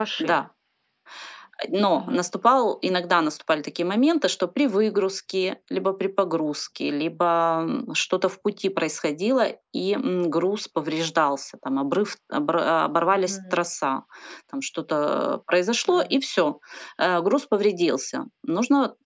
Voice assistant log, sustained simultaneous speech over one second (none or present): none